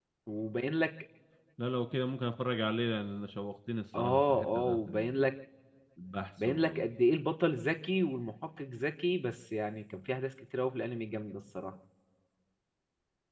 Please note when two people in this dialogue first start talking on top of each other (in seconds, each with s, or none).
4.0 s